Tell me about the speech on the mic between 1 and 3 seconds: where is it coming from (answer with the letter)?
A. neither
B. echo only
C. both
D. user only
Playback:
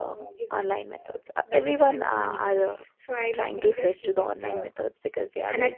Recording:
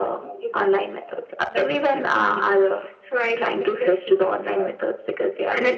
B